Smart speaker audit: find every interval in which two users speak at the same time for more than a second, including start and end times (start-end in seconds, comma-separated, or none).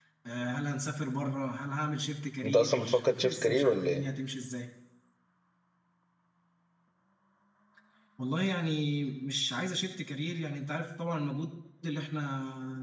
2.4-4.0